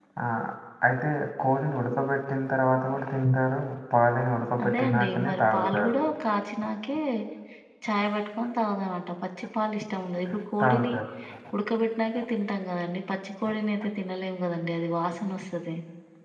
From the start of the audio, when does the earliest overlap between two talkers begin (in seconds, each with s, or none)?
4.6 s